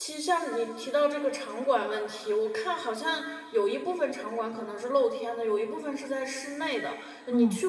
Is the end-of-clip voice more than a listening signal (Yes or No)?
No